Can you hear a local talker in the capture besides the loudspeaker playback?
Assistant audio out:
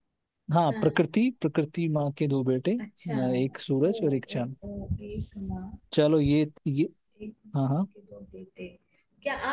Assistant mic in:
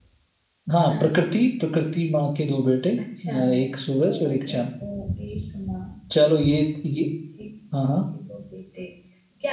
No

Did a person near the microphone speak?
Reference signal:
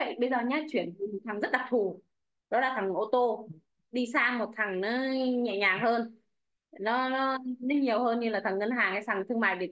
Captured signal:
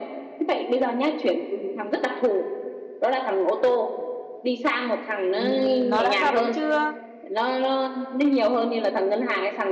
Yes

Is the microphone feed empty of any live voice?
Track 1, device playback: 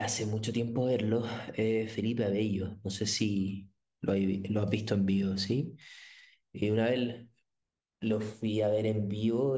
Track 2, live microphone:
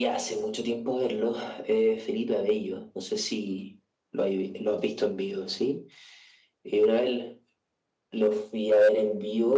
Yes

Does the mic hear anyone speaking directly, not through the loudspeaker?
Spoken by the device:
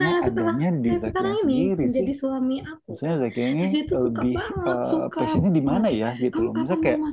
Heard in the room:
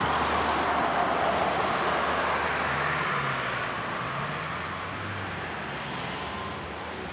No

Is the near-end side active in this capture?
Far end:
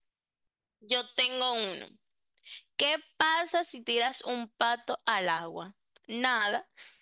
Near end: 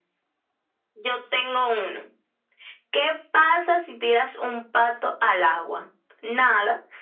No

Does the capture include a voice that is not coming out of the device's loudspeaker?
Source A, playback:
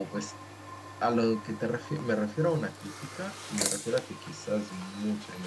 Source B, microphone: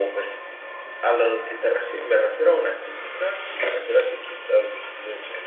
No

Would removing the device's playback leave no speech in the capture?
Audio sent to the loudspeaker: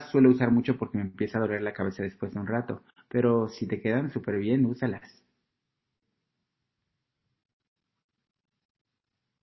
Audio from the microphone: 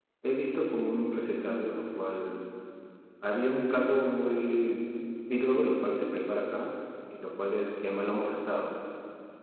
No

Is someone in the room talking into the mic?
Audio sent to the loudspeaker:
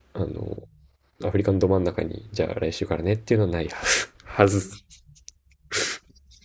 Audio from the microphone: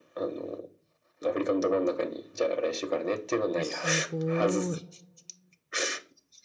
Yes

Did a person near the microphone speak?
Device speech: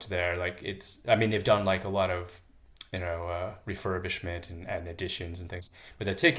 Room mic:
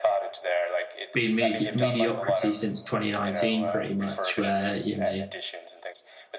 Yes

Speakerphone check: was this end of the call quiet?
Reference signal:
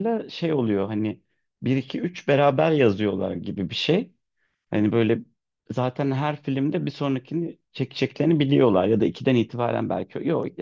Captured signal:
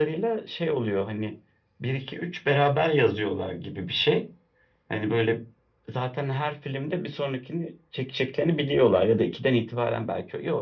Yes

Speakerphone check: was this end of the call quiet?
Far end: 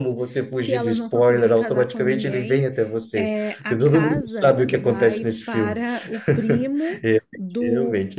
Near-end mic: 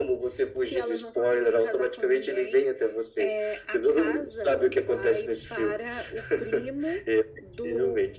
Yes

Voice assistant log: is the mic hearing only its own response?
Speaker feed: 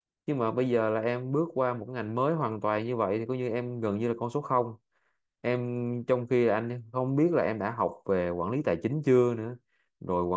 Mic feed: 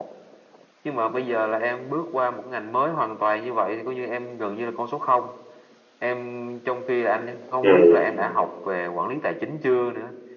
No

